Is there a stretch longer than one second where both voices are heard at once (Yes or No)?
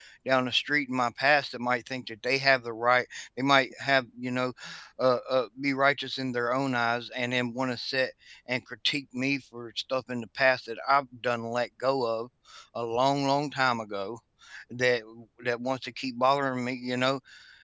No